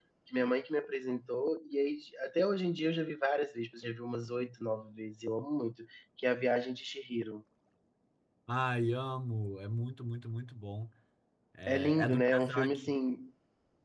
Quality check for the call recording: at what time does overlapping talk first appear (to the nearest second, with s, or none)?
12 s